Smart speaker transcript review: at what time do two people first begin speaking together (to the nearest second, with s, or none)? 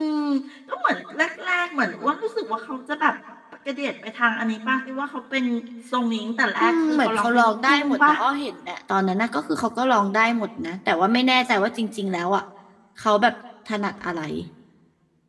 7 s